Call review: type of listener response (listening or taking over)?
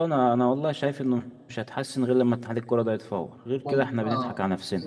taking over